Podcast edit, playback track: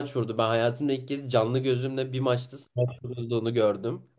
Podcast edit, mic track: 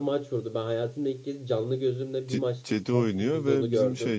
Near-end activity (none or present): present